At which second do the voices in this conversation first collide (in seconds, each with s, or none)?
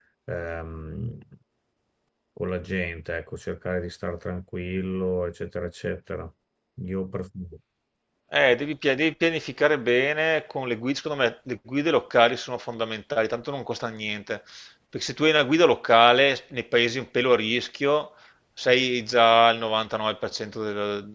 none